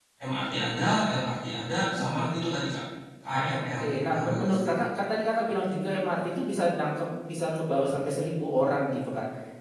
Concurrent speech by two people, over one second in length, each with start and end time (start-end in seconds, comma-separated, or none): 3.3-4.8